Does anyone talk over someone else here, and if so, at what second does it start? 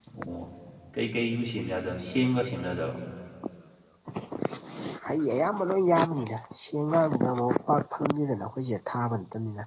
none

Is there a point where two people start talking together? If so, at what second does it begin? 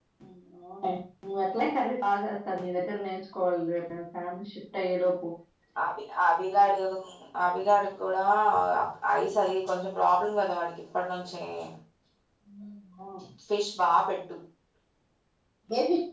none

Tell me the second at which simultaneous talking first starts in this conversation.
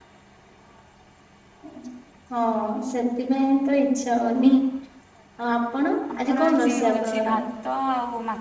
6.2 s

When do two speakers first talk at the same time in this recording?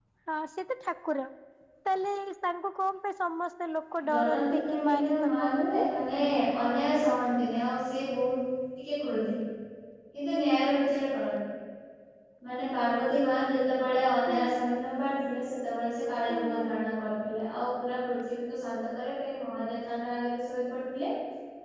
4.1 s

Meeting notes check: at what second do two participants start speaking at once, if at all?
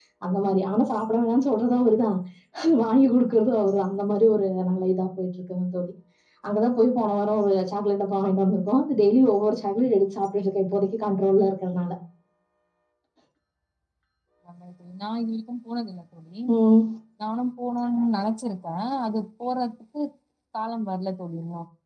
none

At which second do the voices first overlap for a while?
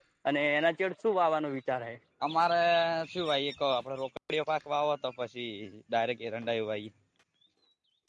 none

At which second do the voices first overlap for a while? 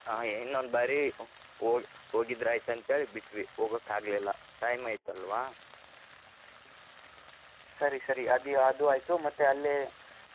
none

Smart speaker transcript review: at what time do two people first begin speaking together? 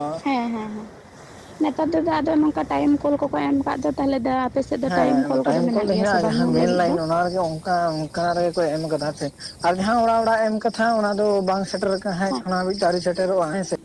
4.8 s

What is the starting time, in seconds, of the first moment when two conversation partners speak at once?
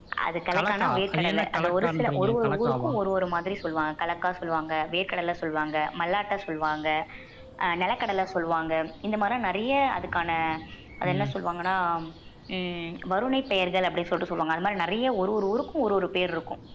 0.6 s

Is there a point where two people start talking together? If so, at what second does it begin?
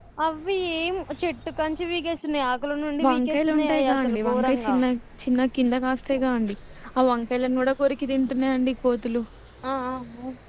3.0 s

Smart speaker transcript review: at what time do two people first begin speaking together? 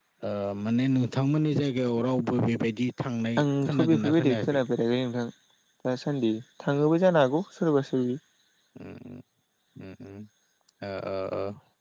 3.4 s

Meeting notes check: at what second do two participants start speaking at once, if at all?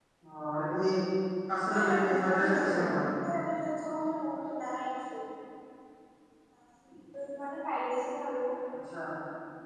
1.9 s

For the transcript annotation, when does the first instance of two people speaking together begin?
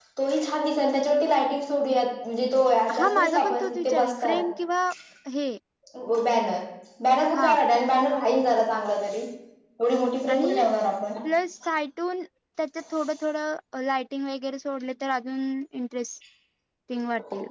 3.0 s

